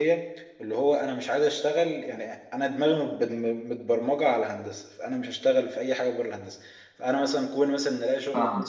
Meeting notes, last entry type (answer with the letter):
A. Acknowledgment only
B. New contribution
A